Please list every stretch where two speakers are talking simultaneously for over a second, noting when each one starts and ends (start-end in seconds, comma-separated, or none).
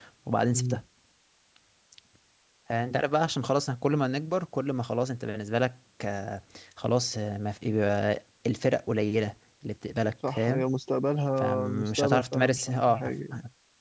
11.4-13.0